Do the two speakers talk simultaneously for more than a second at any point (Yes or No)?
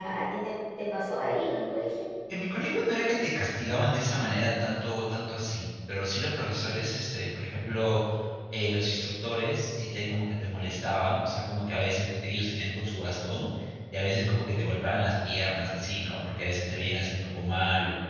No